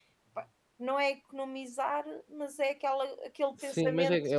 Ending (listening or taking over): taking over